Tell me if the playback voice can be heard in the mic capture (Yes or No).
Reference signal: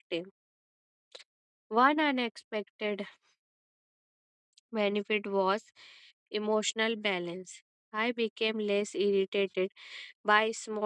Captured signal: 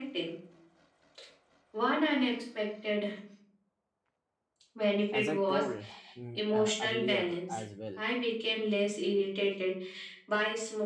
Yes